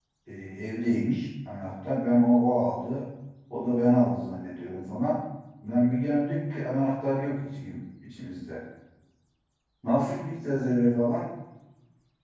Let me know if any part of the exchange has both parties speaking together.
No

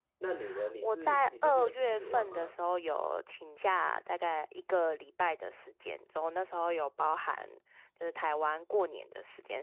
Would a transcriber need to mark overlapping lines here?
Yes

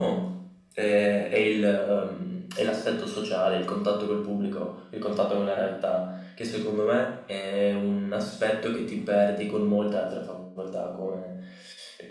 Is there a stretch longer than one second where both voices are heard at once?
No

